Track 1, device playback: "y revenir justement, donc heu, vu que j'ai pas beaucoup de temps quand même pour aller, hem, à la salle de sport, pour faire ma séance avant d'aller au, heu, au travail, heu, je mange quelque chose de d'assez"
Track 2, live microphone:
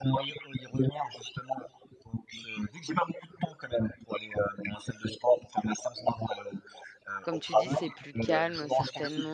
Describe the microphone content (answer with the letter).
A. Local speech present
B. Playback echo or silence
A